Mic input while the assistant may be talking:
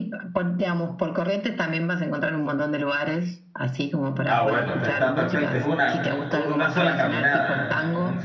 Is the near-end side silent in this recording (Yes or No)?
No